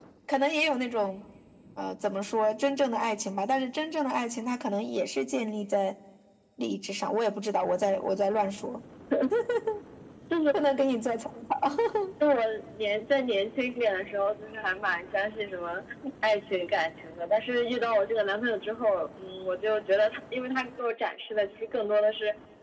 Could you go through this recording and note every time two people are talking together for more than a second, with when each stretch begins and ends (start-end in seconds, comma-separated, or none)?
none